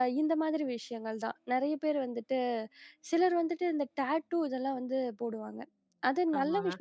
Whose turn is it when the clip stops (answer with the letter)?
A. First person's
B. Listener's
A